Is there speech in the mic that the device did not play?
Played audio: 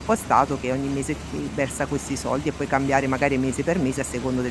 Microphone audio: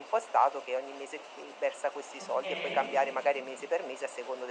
Yes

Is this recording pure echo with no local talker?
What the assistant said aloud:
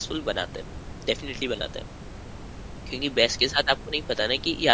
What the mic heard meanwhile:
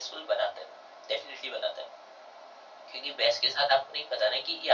Yes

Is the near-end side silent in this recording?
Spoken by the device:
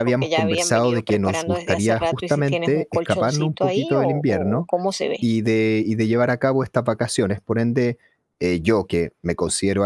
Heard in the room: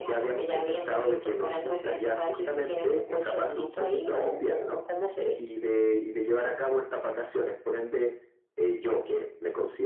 Yes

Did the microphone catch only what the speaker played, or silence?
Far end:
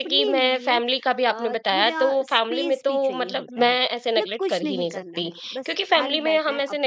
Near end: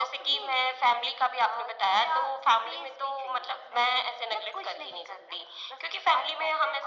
Yes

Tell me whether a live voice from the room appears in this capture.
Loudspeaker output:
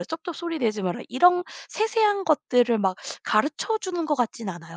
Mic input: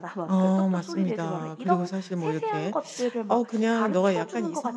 Yes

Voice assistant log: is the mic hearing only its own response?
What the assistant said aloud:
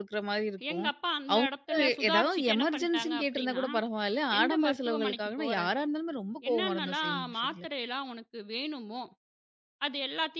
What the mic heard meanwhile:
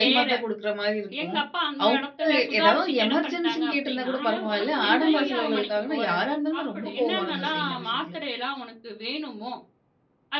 No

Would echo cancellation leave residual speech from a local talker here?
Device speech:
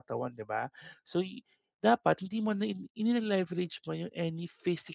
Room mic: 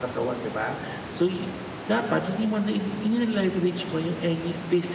No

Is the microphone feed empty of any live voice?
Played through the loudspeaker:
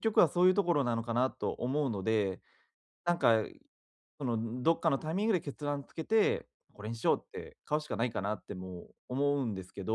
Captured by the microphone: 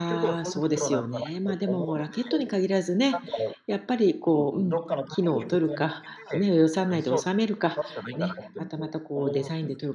No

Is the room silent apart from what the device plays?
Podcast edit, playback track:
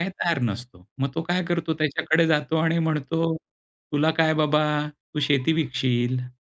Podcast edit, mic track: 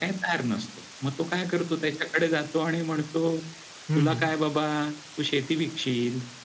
No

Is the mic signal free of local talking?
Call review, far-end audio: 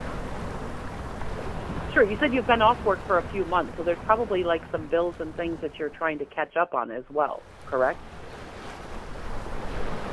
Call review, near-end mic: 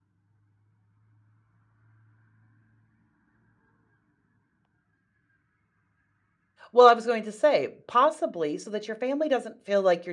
No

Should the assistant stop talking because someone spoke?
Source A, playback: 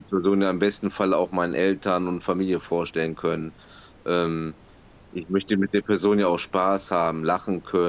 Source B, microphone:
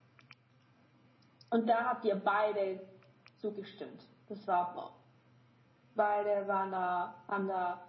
Yes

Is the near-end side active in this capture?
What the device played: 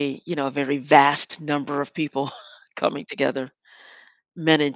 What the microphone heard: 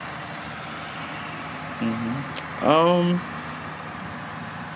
Yes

